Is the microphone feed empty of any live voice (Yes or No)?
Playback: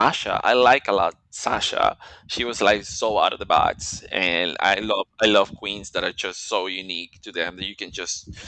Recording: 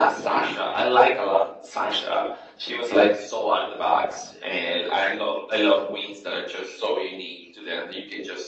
Yes